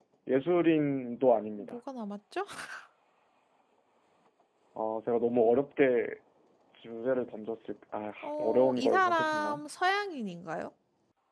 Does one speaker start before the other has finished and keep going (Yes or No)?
Yes